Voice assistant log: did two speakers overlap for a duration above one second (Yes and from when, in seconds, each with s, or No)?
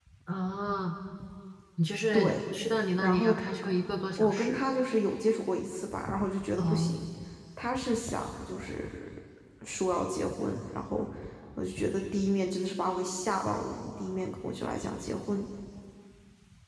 No